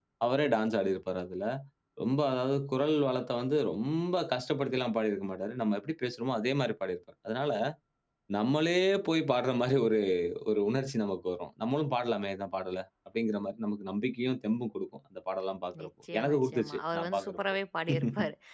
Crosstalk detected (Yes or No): Yes